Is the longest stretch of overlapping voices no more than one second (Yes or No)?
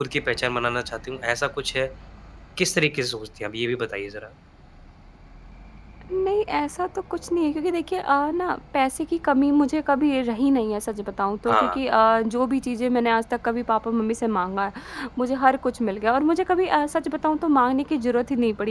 Yes